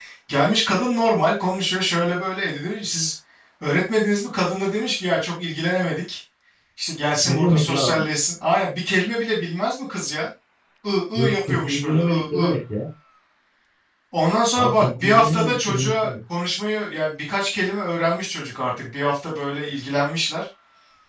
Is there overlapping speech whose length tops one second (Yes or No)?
Yes